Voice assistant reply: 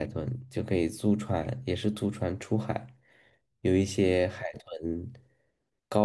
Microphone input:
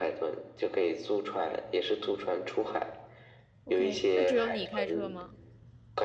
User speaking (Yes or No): Yes